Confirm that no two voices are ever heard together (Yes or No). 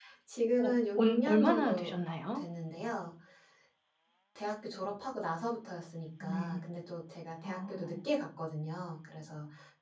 No